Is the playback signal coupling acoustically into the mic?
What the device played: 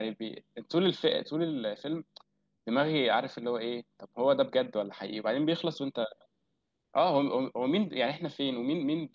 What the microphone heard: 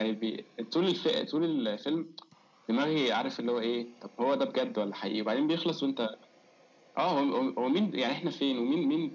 Yes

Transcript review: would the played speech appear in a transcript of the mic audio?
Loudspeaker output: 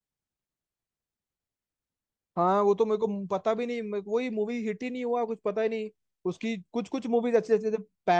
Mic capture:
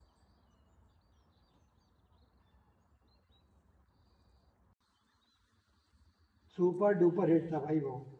No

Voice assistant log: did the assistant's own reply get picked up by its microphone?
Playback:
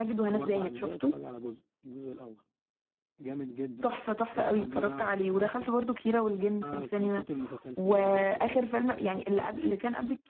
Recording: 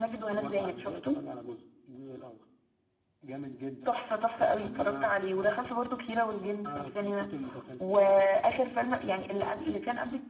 Yes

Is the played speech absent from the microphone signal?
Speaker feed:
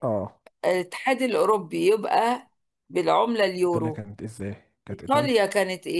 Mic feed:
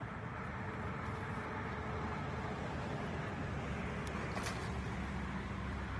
Yes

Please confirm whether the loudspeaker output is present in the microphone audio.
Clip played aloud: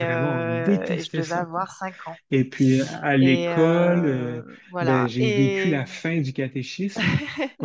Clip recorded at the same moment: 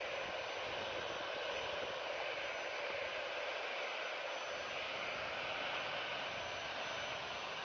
No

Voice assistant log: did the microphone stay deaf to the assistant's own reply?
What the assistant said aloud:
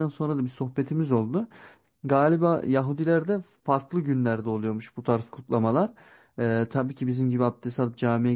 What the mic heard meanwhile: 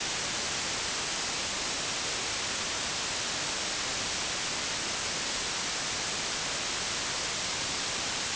Yes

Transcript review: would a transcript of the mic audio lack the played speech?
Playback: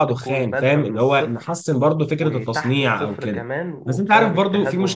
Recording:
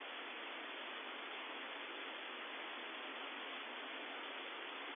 Yes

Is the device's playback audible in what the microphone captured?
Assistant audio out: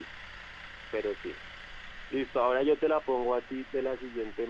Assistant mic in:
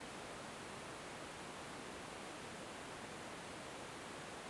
No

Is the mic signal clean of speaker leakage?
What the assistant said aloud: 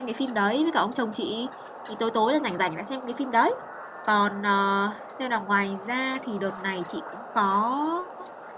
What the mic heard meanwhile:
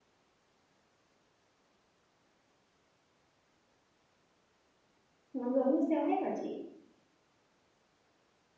Yes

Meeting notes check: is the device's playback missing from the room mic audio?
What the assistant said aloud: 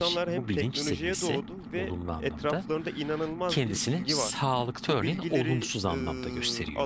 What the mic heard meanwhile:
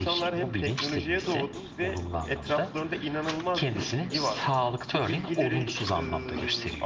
No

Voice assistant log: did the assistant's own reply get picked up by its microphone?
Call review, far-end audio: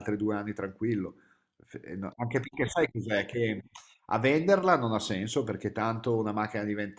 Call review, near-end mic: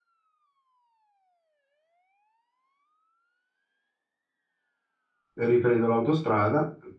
No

